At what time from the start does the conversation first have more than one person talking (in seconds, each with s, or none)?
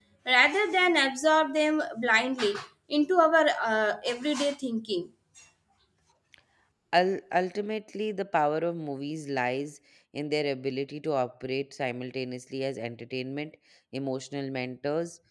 none